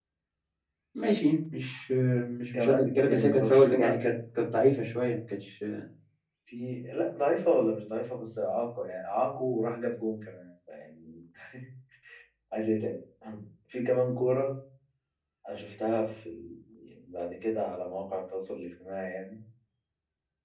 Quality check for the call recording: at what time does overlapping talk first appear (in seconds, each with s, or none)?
2.5 s